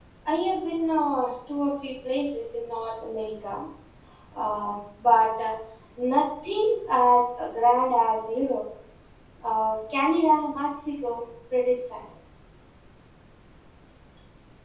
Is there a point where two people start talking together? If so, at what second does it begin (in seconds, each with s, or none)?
none